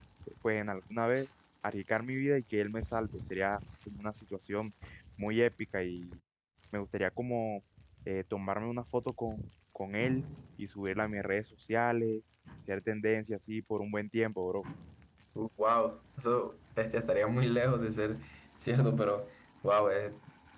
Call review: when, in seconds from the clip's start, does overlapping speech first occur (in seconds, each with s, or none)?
none